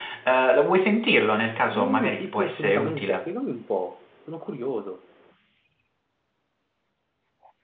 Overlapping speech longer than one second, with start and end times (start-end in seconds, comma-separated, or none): 1.7-3.3